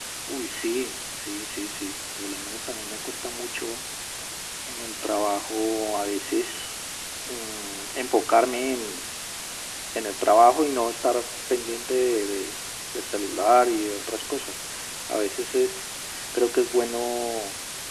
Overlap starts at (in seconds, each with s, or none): none